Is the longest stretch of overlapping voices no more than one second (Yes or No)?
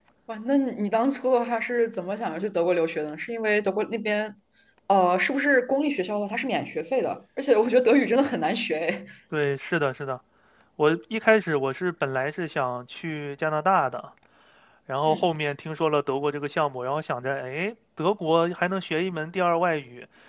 Yes